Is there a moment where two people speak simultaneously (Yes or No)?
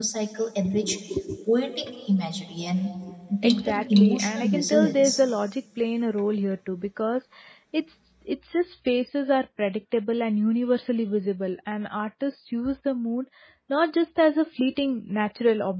Yes